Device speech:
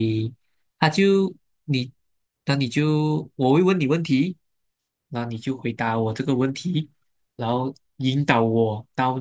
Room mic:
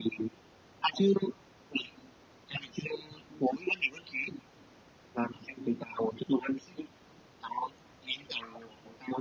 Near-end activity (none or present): none